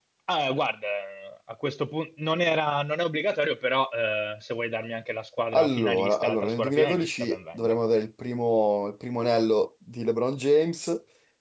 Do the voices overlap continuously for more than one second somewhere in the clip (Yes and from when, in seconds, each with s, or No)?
Yes, from 5.5 s